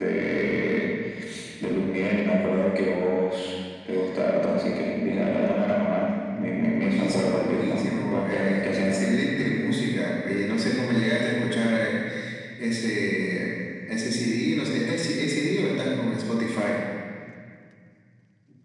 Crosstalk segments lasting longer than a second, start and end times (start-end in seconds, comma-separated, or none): 6.8-9.0